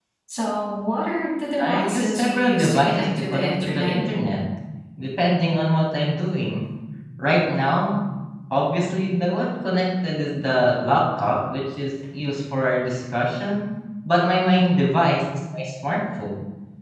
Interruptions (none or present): present